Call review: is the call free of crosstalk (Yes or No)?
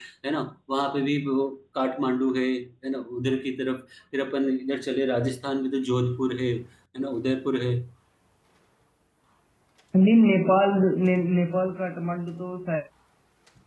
Yes